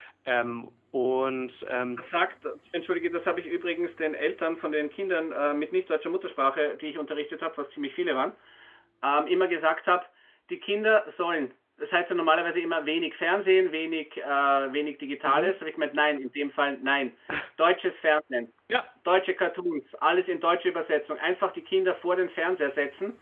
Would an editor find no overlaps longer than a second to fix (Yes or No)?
Yes